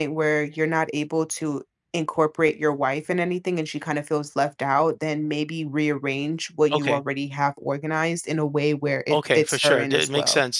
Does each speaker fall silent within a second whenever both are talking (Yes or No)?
No